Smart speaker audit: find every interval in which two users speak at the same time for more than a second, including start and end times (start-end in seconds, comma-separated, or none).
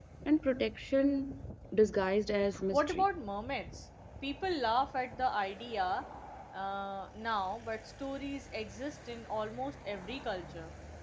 none